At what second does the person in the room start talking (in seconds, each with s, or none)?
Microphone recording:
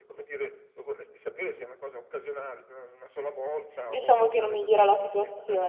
3.8 s